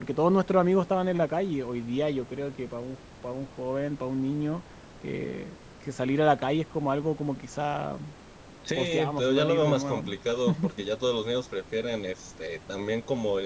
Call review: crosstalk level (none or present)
present